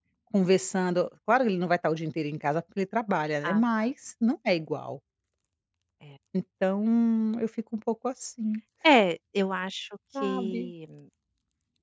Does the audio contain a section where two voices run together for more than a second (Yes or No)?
No